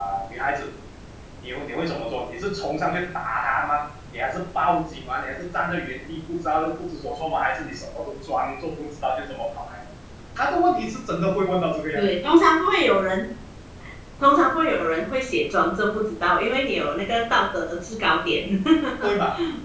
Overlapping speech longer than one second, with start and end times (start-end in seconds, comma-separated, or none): none